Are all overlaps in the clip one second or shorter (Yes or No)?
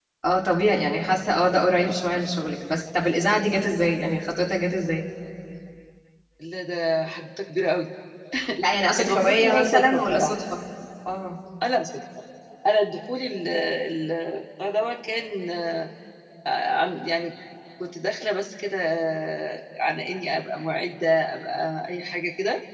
No